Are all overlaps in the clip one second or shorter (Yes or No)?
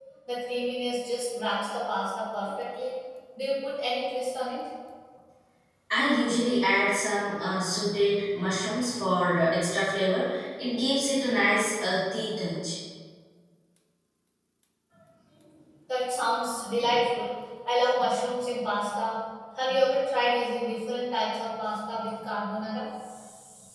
Yes